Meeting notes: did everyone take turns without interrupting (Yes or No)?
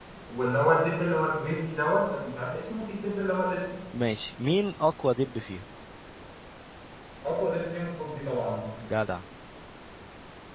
Yes